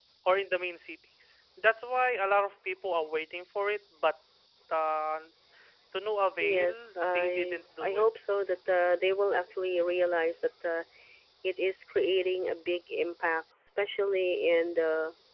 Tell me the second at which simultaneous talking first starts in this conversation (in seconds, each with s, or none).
6.4 s